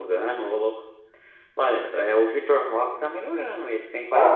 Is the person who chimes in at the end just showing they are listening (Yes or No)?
No